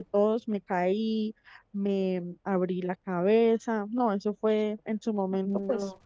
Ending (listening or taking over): listening